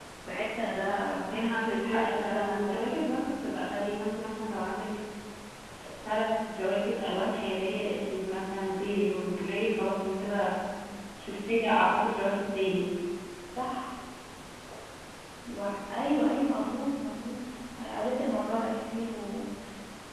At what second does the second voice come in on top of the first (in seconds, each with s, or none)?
1.2 s